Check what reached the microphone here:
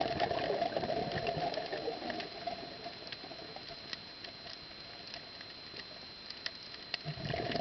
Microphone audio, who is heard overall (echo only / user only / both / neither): neither